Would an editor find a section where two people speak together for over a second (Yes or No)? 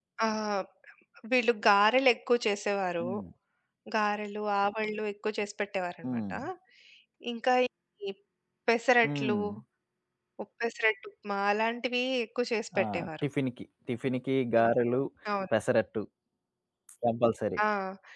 No